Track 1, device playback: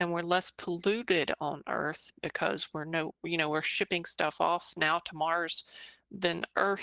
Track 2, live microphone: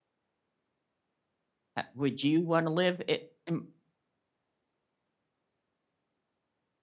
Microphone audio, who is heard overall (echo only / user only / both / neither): user only